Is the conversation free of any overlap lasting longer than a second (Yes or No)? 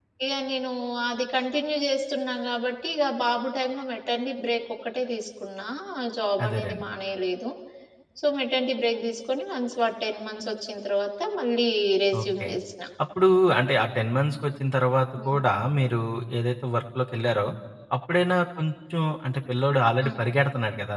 Yes